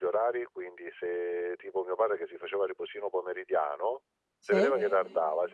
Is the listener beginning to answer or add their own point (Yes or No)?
No